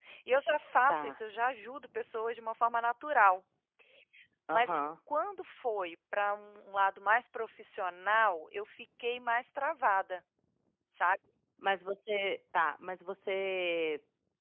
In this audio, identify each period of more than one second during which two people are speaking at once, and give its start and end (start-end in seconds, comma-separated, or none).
none